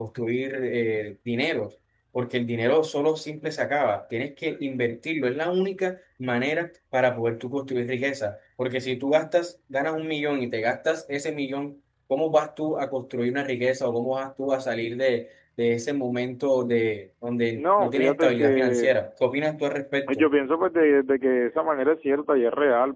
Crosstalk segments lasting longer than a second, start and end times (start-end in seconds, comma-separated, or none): 17.6-18.9